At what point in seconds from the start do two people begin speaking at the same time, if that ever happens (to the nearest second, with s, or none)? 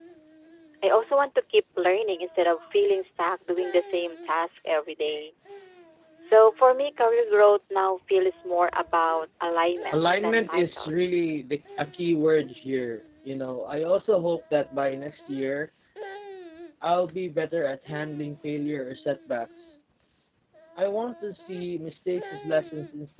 10 s